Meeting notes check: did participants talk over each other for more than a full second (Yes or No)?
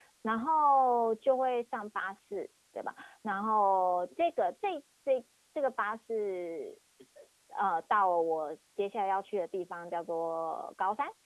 No